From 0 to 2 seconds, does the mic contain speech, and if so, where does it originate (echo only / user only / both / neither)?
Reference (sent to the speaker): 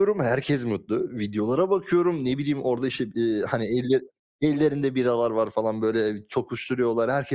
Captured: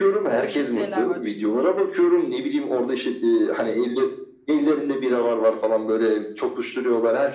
both